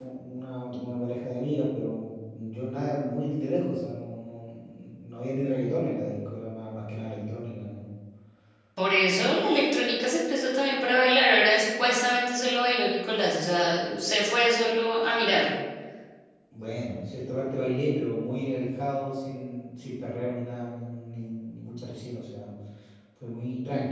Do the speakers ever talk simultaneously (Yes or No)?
No